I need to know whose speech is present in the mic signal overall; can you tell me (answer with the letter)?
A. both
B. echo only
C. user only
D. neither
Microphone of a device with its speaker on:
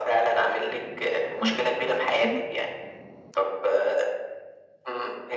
A